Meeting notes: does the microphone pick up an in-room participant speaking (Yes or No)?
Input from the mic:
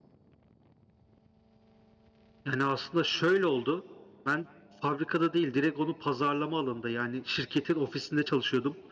Yes